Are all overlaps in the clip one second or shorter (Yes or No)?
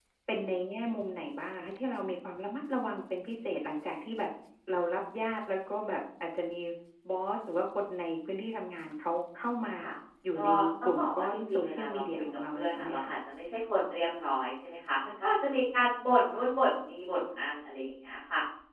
No